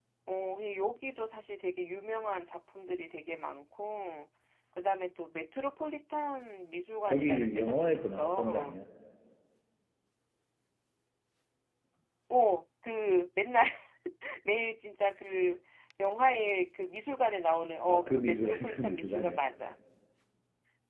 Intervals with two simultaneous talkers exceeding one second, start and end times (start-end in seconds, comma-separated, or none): 7.1-8.8, 17.9-19.4